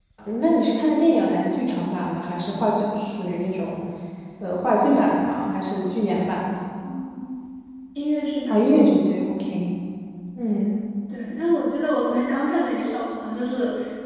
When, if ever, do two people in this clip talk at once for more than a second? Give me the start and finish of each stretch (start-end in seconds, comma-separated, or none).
none